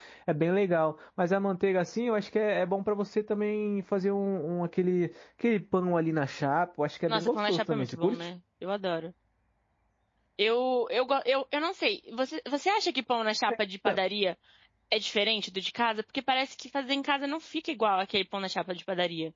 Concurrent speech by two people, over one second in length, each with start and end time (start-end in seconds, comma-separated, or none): 7.1-8.3